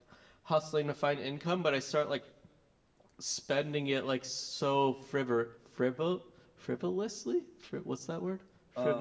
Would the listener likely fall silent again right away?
No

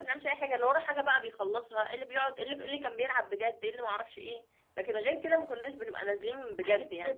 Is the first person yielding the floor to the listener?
Yes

